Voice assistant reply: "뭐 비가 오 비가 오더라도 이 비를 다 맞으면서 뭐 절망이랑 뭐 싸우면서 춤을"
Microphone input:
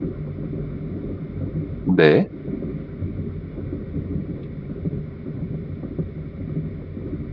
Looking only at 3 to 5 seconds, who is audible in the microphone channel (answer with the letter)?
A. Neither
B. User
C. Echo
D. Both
A